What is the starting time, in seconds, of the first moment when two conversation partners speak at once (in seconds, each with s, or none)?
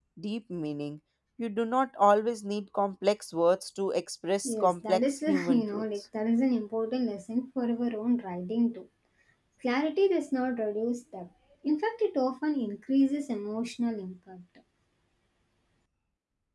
4.5 s